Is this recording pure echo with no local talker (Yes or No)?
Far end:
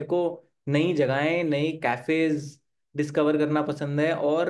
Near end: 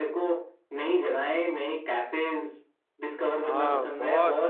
No